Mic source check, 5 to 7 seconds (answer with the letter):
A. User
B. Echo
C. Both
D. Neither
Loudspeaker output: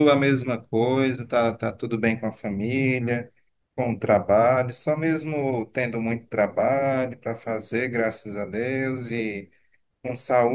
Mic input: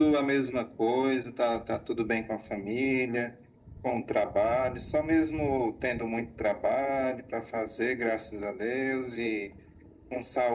B